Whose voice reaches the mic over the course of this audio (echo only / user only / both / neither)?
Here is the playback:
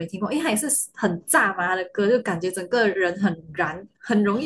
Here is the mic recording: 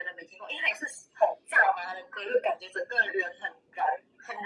echo only